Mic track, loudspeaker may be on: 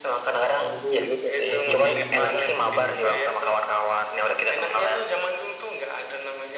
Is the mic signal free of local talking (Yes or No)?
No